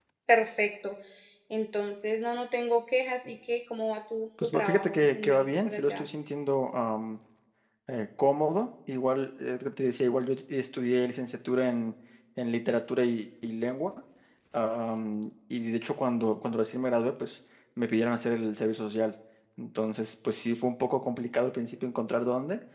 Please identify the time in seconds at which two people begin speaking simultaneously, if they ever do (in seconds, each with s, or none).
4.4 s